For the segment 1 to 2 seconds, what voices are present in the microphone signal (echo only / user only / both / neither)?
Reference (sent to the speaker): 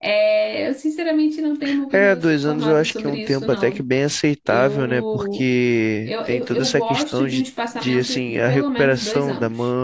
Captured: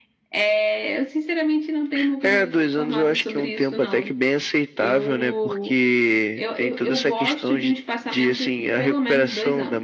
echo only